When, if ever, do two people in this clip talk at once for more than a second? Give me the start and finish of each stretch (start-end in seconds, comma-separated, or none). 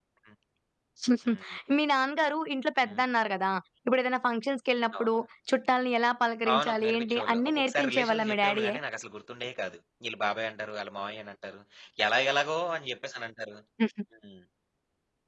6.5-8.8